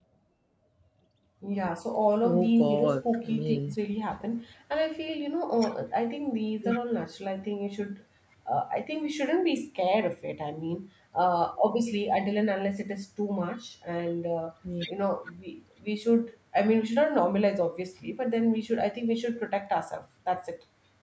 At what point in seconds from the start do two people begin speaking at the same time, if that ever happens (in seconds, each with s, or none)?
2.2 s